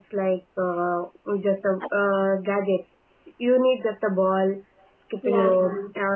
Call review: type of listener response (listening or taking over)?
listening